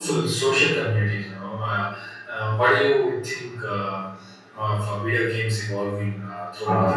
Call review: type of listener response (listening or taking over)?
taking over